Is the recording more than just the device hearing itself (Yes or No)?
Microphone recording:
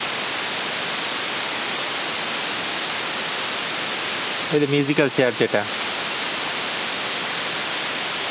Yes